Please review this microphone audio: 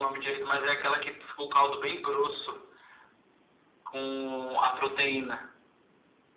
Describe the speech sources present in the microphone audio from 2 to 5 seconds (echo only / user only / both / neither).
echo only